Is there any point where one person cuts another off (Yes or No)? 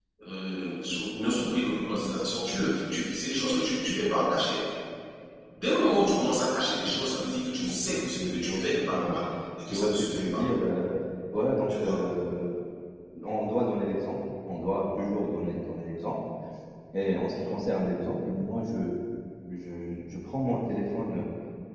Yes